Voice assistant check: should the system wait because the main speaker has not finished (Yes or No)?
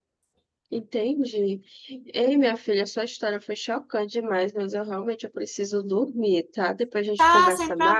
No